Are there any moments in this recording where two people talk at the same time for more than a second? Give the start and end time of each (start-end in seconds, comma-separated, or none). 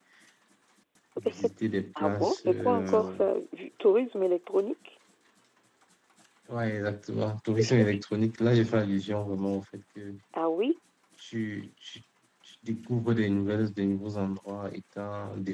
1.9-3.2